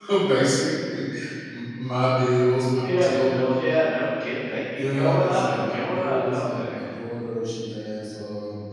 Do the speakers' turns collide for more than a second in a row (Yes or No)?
Yes